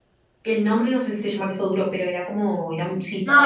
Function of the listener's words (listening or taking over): taking over